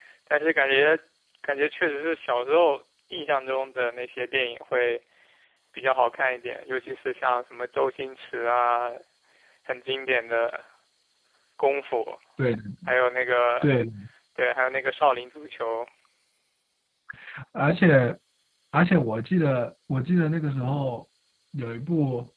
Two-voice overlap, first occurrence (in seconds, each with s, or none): none